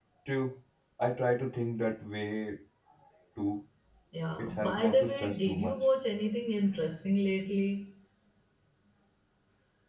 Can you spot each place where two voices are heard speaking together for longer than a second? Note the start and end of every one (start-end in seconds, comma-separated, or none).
4.4-5.8